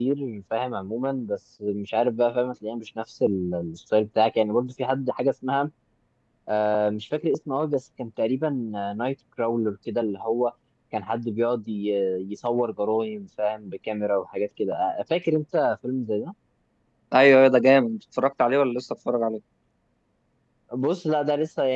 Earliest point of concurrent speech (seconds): none

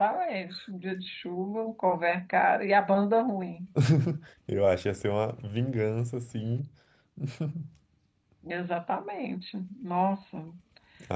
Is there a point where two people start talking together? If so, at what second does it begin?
none

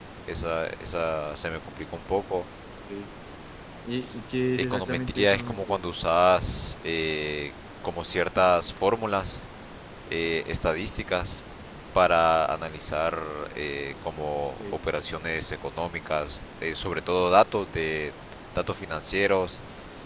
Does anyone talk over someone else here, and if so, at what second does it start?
4.6 s

